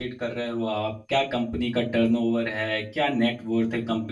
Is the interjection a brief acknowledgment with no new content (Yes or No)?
Yes